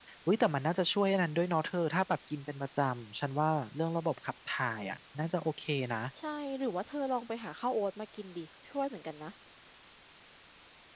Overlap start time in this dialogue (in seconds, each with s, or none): none